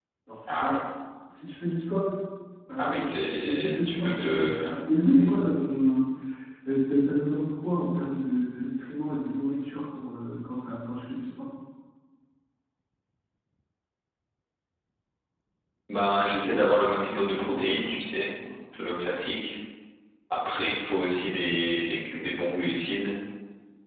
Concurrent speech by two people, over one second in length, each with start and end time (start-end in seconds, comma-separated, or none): 2.8-4.6